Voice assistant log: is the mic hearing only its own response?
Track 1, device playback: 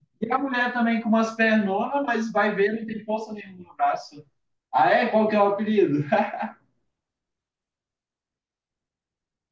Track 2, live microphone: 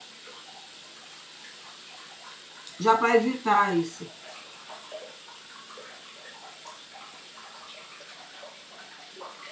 No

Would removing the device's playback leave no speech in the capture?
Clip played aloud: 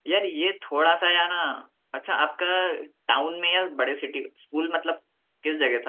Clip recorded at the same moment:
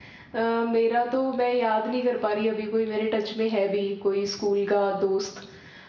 No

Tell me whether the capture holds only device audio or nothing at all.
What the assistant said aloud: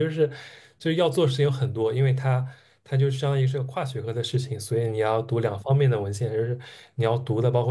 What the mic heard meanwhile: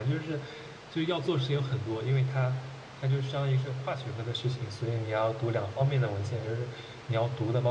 Yes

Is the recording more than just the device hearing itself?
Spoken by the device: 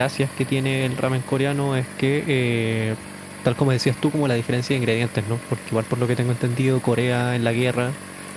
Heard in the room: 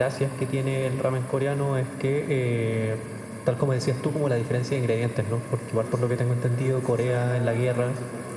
Yes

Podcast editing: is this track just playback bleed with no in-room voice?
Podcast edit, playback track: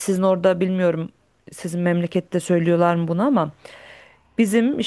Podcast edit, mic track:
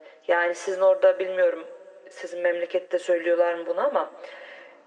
Yes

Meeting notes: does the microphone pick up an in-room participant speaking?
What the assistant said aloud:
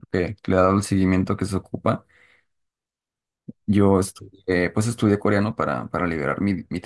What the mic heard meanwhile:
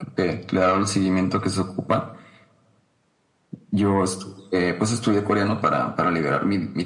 No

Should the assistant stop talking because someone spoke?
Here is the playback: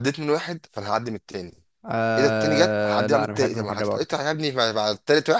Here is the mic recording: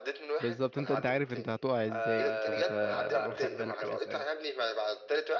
Yes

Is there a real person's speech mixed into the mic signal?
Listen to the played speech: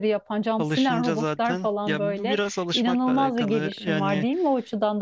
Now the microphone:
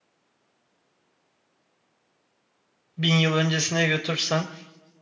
Yes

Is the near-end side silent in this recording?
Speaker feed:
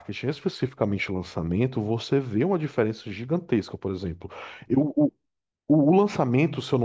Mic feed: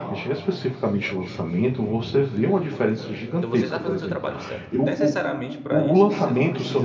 No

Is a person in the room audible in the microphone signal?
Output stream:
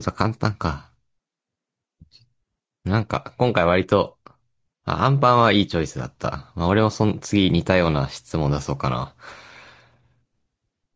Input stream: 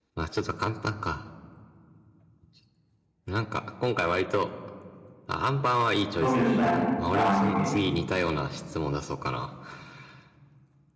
Yes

